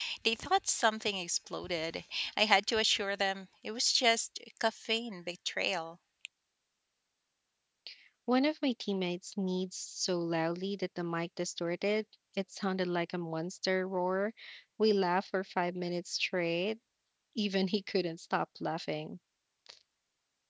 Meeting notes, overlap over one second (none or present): none